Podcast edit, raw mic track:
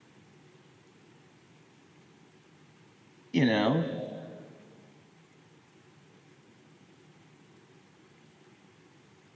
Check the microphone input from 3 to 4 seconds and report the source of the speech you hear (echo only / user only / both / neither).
user only